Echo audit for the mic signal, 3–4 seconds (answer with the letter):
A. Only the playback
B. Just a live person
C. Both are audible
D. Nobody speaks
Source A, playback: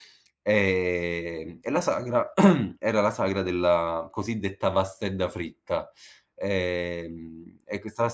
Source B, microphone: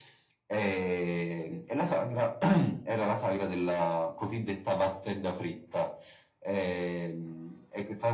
A